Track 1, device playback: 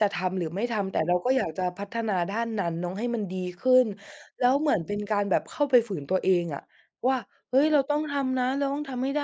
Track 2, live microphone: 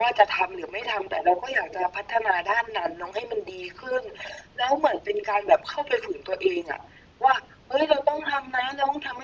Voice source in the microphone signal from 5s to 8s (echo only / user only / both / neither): echo only